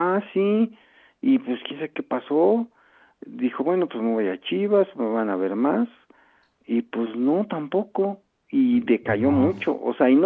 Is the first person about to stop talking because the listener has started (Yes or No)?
No